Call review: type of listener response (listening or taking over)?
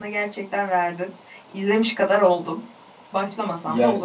taking over